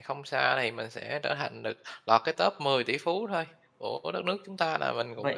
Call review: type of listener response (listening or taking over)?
taking over